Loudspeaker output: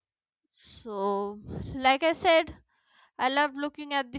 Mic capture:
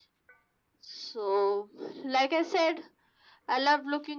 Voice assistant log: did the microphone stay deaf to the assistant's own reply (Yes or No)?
No